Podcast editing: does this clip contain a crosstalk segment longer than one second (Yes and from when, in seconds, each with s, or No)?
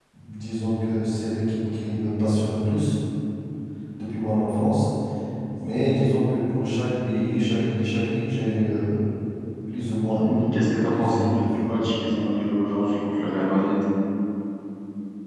Yes, from 9.9 s